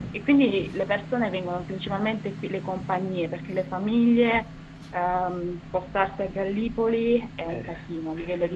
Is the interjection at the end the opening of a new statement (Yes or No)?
No